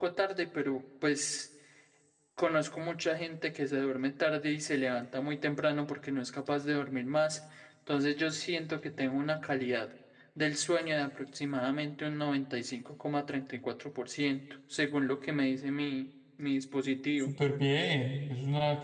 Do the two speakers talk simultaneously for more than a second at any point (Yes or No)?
No